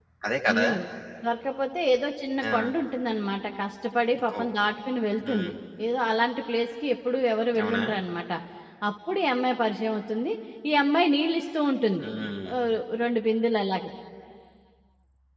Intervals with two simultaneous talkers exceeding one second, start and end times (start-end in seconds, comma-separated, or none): none